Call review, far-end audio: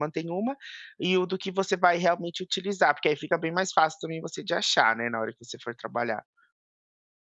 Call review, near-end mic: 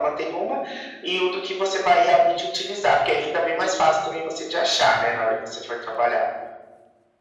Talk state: echo only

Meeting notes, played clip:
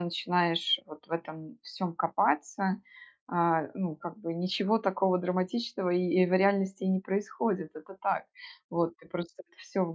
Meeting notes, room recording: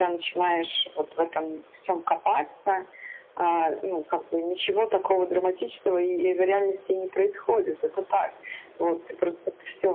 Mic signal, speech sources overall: echo only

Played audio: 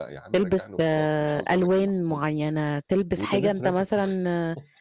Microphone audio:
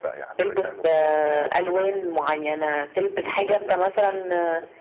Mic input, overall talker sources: echo only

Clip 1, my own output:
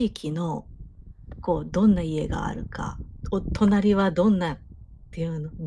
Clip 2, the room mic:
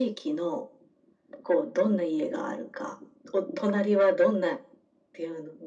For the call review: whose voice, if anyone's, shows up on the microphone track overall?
echo only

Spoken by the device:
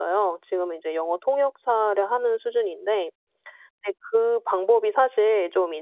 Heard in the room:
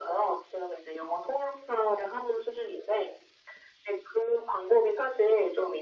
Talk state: echo only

